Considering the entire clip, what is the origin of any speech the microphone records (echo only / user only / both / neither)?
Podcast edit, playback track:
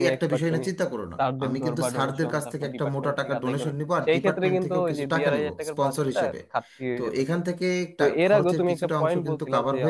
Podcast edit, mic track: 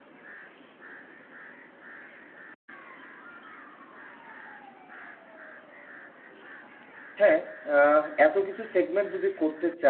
user only